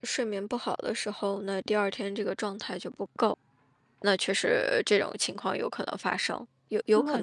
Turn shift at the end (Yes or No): Yes